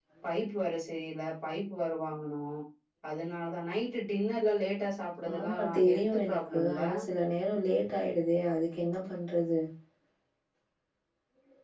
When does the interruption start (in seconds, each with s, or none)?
5.2 s